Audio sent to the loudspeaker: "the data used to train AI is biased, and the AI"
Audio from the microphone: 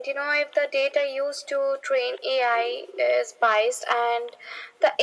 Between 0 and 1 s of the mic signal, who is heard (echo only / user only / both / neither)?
echo only